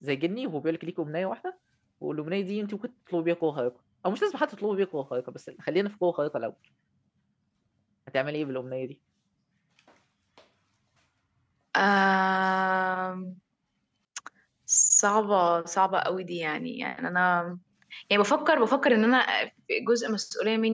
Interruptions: none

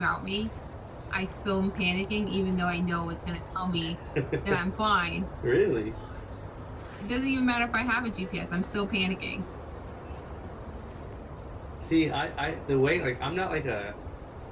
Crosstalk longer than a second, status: none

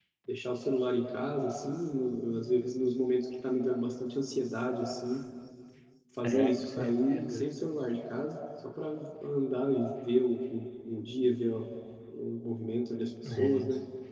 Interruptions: present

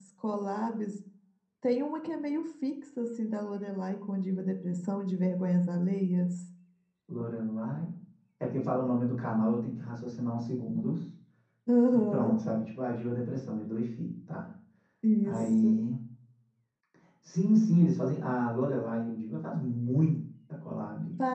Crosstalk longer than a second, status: none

